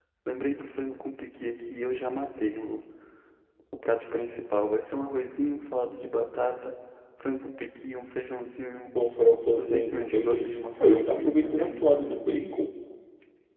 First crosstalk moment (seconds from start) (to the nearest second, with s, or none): 10 s